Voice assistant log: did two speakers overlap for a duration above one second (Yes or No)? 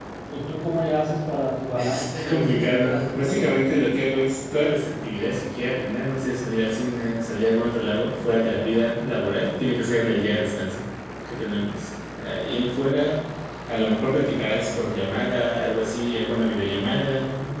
Yes